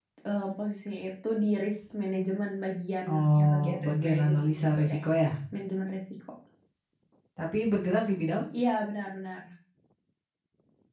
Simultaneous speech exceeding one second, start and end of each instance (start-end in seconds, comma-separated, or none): 3.1-5.0